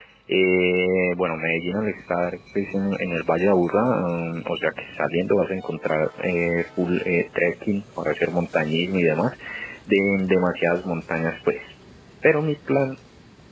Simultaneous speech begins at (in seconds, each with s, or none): none